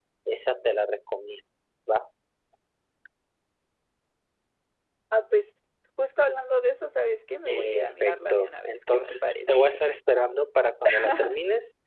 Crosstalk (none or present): present